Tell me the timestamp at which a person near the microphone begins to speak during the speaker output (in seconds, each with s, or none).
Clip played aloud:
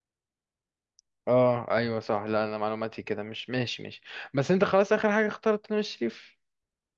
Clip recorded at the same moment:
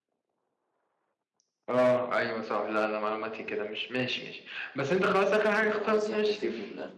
5.5 s